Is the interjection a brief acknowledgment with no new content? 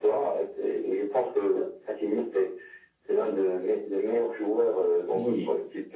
Yes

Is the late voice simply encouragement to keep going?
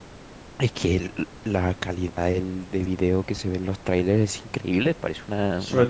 No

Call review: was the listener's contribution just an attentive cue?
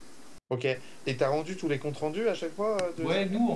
No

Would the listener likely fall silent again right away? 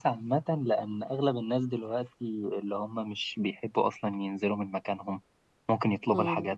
Yes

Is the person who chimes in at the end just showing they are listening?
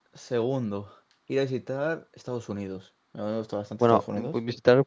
No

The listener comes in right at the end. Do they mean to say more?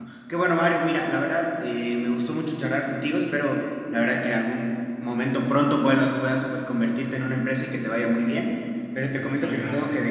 No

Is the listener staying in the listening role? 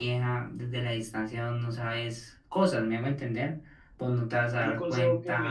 No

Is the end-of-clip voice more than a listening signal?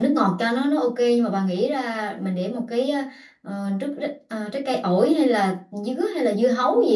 Yes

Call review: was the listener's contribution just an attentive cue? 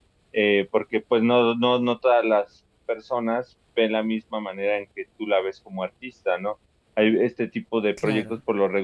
Yes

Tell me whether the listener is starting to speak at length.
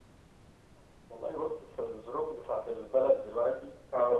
No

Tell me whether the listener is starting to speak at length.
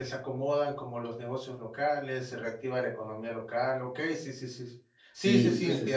Yes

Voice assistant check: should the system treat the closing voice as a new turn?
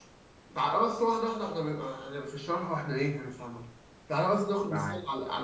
No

